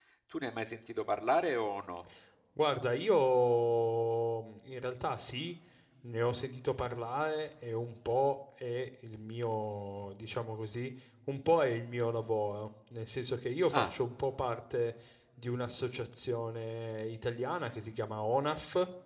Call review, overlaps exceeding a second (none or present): none